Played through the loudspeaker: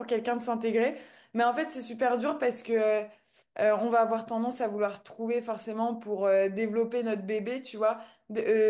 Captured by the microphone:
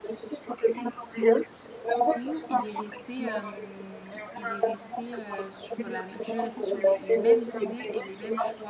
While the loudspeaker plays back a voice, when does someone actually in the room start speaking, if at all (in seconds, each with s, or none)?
2.1 s